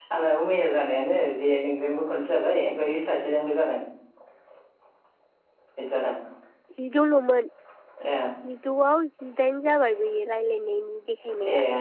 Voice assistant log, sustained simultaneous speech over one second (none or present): none